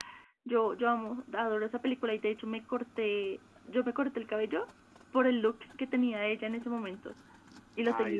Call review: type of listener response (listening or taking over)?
taking over